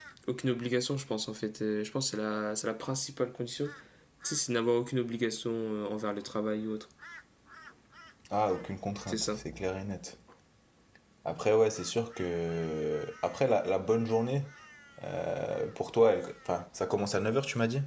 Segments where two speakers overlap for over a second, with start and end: none

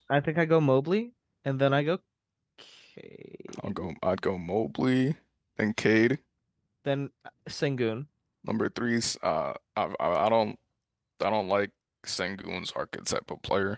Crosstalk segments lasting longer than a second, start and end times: none

